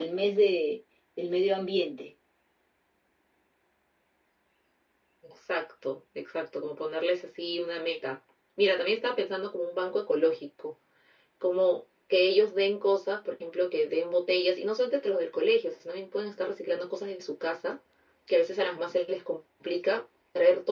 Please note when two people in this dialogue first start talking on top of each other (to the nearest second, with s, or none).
none